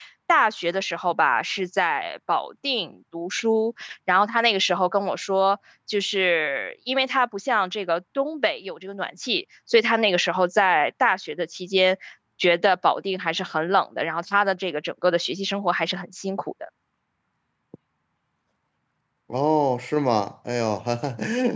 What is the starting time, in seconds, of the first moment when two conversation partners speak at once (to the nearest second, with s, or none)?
none